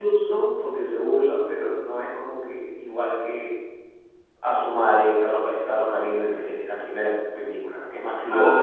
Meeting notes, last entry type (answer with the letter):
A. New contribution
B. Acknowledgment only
A